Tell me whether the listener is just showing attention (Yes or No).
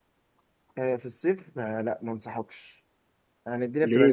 Yes